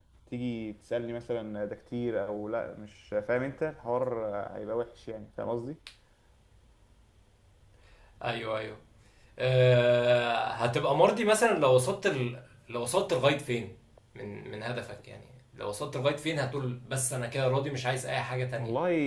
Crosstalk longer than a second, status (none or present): none